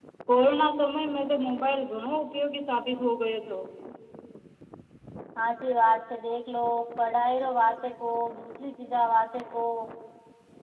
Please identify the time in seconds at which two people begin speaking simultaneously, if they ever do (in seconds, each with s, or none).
none